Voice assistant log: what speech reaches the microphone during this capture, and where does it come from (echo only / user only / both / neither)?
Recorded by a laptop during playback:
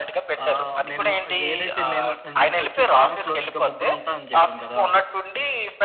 both